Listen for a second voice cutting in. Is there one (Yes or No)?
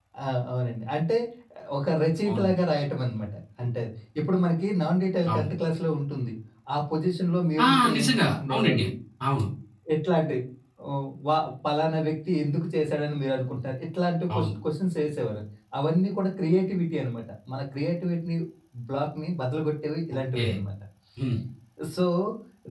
Yes